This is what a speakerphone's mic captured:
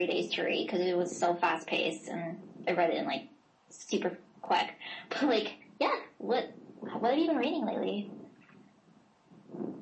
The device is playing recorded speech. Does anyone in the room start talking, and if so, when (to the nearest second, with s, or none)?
none